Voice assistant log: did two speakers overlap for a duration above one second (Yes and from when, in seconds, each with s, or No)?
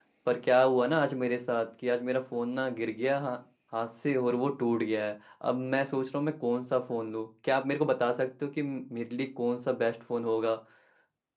No